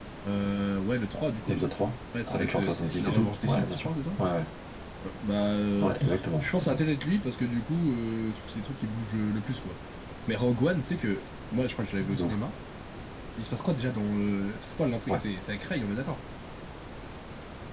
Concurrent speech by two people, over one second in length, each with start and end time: 2.3-3.9

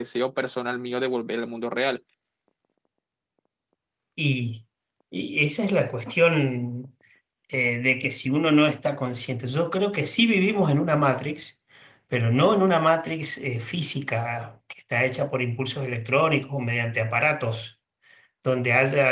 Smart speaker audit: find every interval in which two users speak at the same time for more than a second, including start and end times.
none

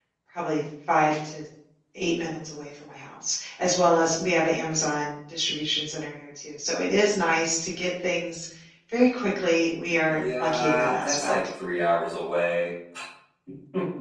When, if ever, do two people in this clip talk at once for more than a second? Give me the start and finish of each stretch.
10.1-11.3

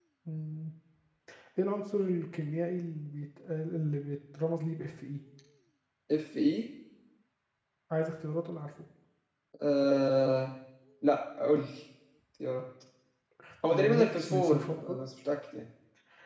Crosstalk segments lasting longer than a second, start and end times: 13.7-15.0

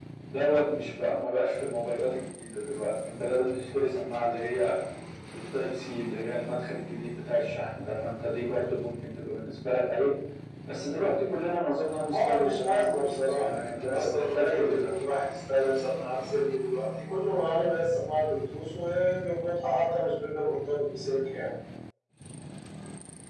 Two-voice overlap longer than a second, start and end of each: 12.1-14.9

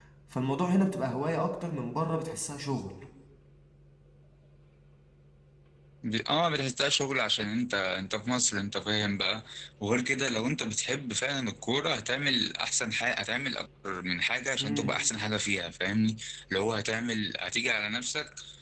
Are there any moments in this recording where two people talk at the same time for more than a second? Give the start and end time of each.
none

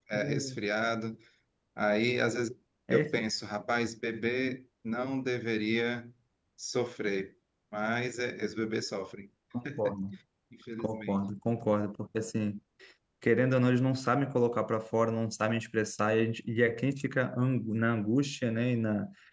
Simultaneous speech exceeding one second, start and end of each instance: none

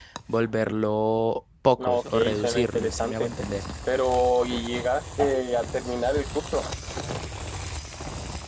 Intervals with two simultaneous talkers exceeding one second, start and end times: 1.8-3.3

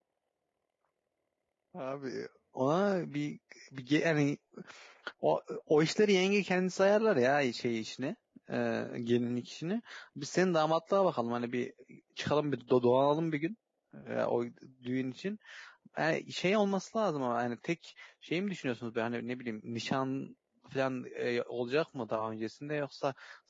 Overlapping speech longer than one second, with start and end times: none

